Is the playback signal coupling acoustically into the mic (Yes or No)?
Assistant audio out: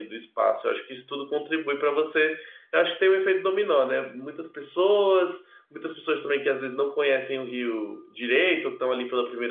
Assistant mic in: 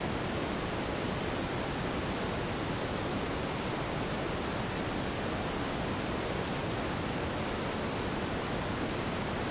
No